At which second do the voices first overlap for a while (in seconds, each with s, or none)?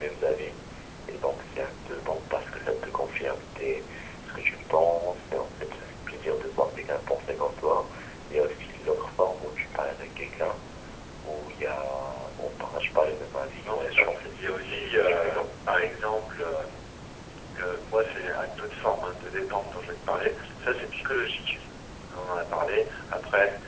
13.6 s